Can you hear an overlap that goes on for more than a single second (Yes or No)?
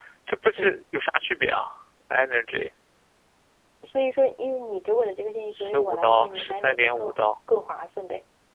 Yes